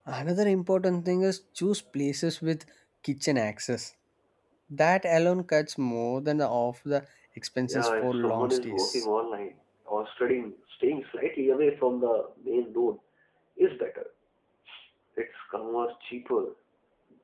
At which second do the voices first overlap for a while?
7.7 s

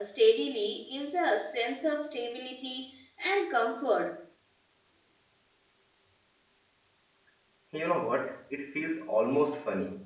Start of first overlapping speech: none

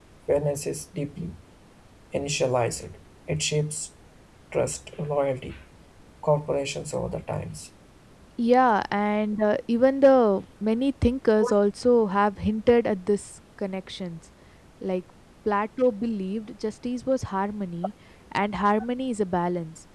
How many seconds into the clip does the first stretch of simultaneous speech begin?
none

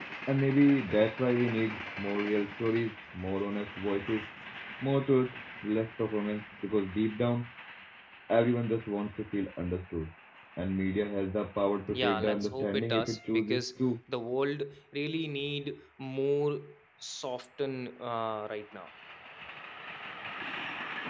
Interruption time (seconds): 11.9 s

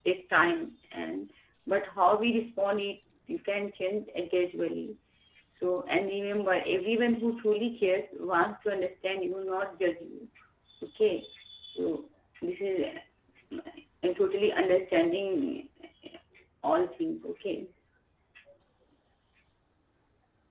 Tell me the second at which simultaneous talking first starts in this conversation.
none

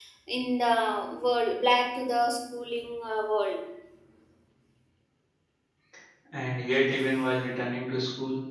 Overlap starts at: none

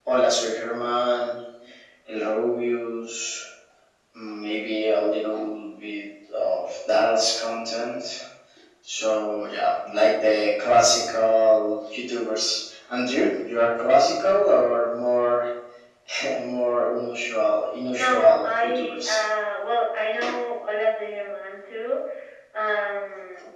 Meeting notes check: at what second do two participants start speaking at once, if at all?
17.9 s

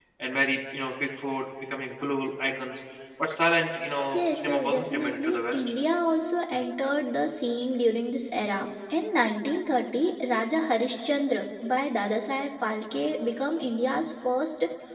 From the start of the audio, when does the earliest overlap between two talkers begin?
4.1 s

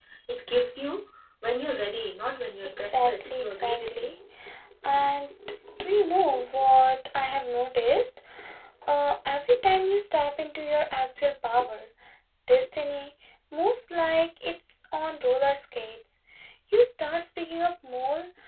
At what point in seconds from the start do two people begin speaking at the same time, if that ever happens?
2.6 s

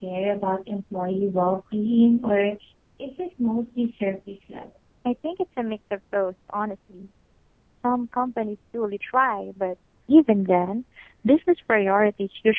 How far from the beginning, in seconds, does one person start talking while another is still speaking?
none

